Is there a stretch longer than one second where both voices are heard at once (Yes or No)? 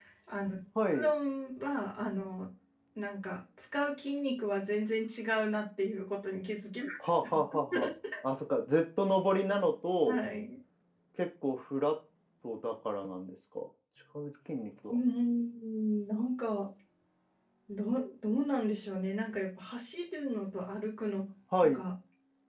No